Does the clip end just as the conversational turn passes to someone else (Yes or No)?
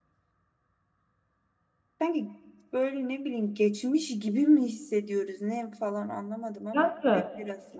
Yes